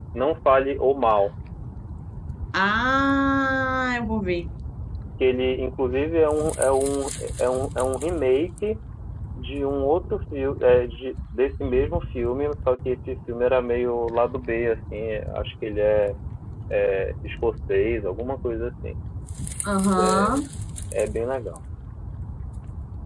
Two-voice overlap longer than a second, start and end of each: none

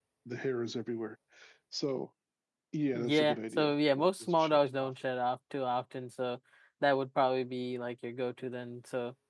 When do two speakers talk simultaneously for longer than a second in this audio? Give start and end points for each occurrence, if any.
2.9-4.9

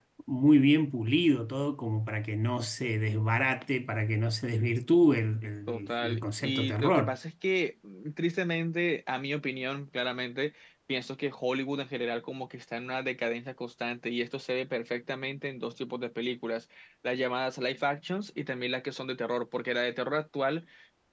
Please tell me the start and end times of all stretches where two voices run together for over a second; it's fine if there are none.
5.7-7.2

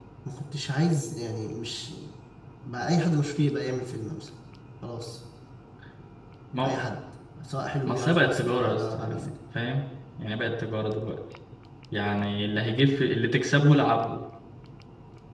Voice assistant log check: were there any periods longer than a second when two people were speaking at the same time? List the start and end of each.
7.9-9.3

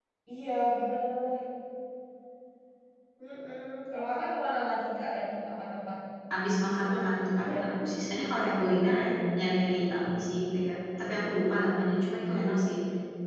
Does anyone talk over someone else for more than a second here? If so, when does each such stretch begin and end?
none

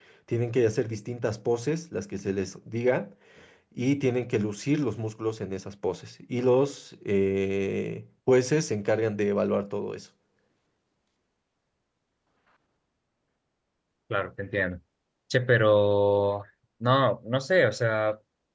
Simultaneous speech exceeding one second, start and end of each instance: none

